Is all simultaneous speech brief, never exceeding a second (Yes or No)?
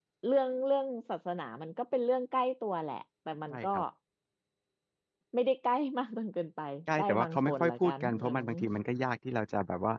No